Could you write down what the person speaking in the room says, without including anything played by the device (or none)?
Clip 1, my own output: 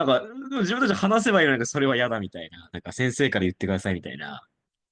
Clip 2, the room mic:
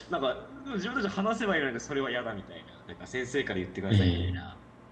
え